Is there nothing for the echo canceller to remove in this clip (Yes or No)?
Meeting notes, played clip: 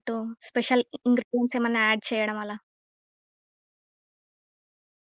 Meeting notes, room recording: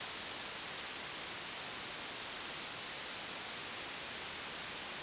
Yes